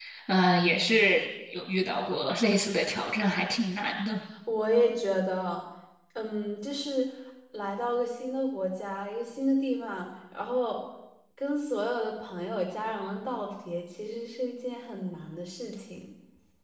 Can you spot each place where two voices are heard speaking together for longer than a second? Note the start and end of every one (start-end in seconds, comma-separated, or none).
none